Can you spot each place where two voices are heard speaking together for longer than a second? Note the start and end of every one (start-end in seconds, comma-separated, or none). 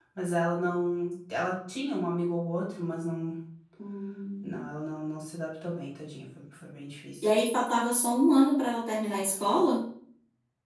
none